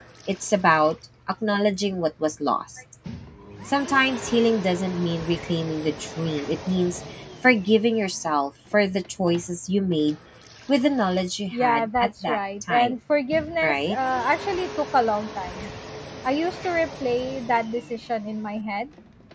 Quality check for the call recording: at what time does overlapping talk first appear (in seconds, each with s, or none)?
11.5 s